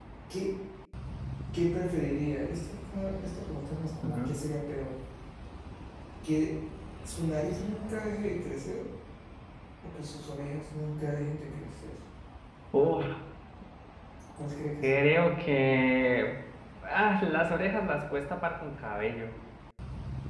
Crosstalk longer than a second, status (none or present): none